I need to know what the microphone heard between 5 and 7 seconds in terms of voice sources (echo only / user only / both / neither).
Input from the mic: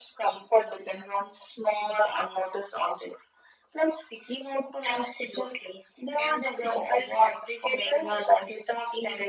echo only